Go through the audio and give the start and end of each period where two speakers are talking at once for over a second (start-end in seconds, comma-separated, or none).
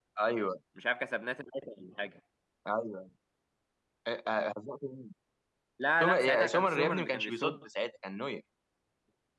6.0-7.6